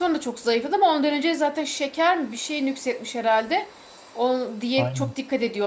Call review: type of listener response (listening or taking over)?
listening